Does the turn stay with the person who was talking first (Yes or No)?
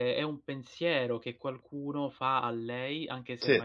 Yes